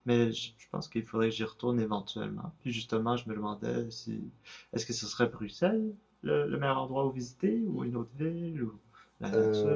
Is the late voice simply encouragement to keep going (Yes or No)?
No